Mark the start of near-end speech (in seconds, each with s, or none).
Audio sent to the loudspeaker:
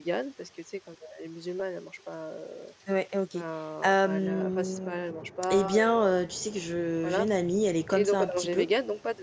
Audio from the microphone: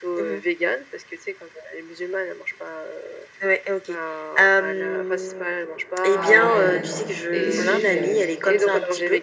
6.1 s